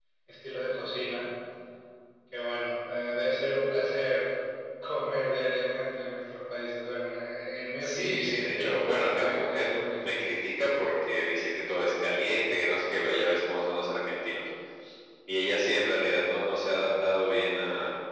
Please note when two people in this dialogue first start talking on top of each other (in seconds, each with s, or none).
7.8 s